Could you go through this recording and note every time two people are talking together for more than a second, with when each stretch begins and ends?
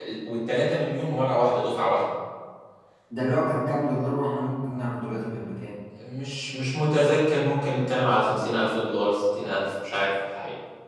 none

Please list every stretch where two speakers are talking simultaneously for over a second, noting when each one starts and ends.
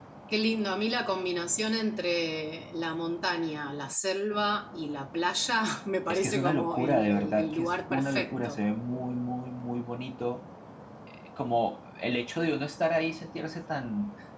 6.1-8.6

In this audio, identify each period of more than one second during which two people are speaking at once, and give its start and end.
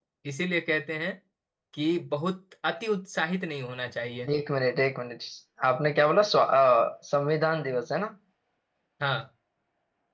none

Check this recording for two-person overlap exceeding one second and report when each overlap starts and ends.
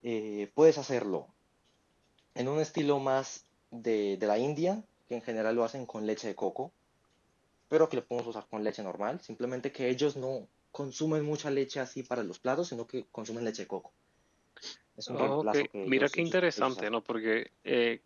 15.1-16.8

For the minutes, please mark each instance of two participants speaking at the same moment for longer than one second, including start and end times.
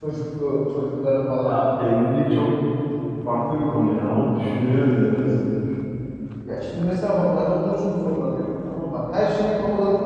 none

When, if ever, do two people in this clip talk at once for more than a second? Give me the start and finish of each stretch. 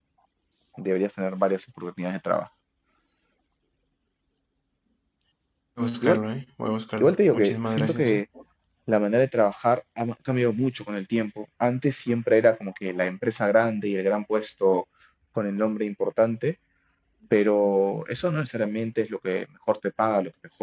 7.0-8.2

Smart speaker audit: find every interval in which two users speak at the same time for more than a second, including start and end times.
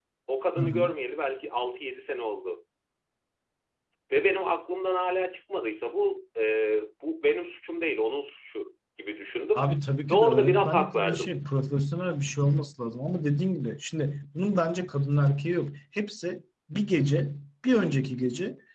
10.1-11.3

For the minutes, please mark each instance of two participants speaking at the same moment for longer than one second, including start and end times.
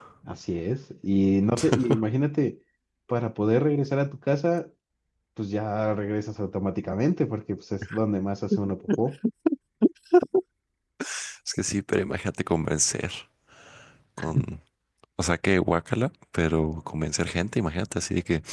none

